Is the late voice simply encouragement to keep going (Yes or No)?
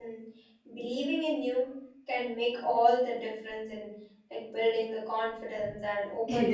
No